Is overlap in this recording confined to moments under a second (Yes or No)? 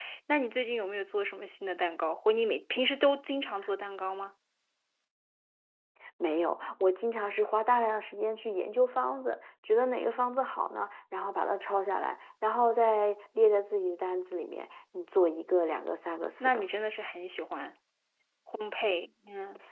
Yes